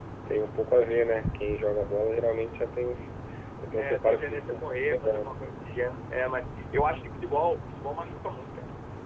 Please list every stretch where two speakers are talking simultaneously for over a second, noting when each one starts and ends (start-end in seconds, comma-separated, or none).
3.8-5.4